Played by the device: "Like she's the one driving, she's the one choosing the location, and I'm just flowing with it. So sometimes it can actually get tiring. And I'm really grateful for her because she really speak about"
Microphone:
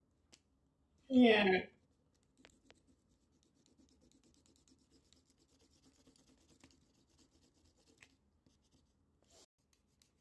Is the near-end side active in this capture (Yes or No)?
Yes